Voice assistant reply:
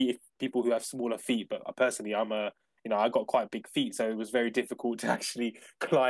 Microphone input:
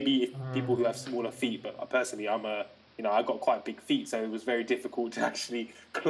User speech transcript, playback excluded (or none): uh